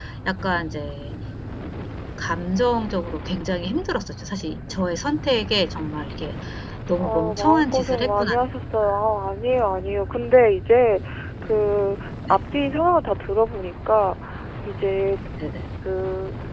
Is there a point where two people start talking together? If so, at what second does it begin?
7.0 s

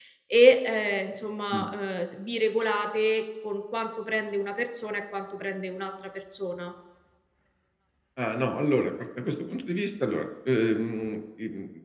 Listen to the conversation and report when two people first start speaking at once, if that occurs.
none

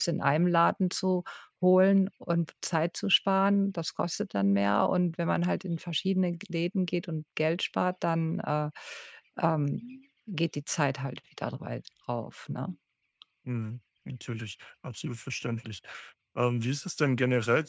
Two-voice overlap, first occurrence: none

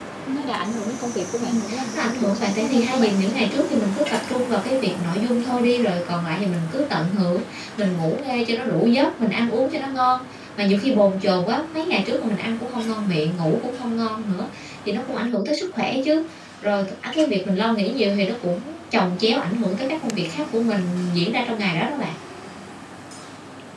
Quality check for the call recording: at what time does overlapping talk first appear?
1.4 s

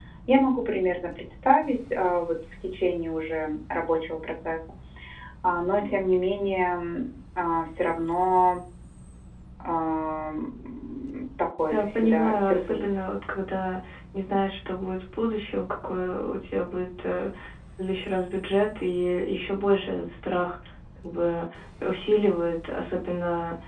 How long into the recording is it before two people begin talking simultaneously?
11.7 s

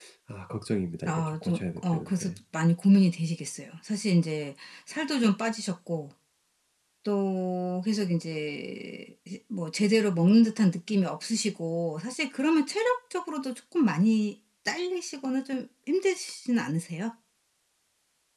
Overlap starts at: 1.0 s

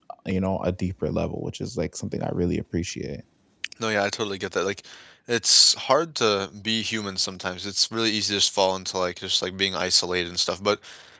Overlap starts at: none

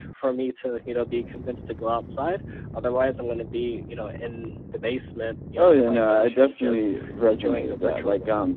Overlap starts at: 5.6 s

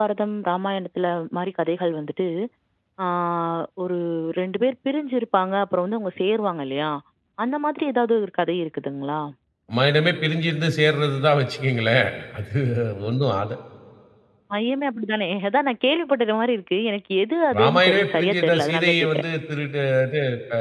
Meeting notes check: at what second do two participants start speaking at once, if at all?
17.5 s

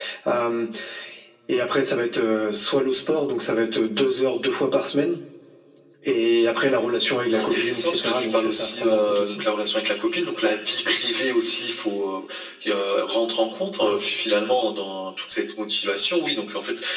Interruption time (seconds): 7.3 s

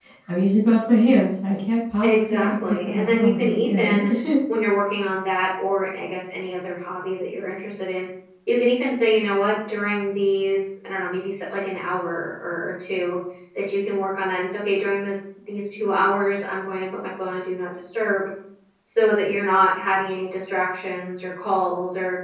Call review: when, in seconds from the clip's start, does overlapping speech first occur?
2.0 s

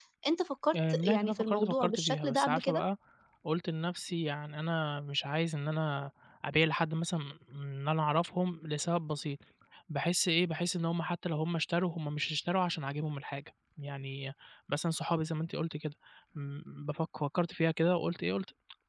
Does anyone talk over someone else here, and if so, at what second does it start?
0.7 s

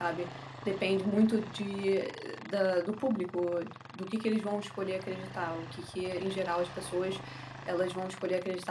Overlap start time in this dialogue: none

